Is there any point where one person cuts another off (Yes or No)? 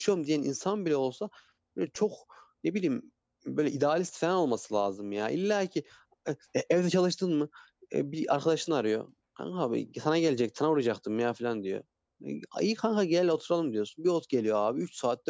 No